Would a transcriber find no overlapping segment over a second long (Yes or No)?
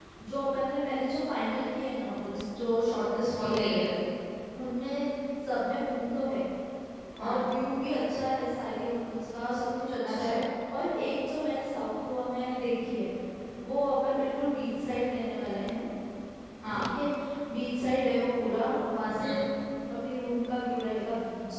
Yes